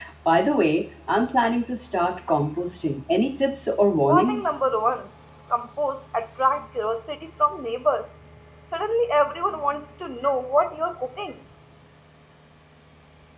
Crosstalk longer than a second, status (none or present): none